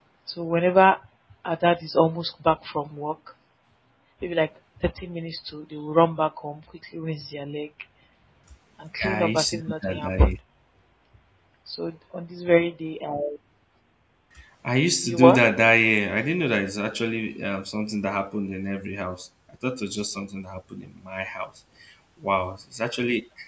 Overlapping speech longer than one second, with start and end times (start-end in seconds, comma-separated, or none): 9.0-10.3